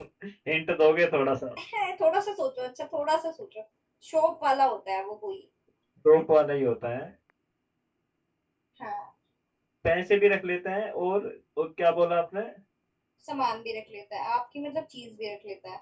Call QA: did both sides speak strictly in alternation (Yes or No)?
Yes